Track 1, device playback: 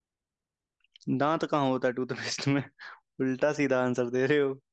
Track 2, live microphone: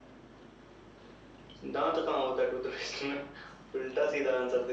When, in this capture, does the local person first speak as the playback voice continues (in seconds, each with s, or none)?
none